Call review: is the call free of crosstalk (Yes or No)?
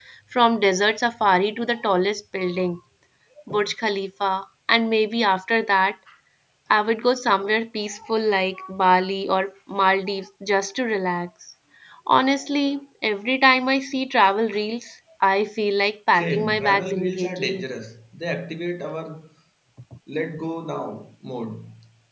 No